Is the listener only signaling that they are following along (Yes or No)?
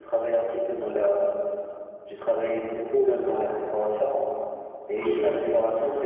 Yes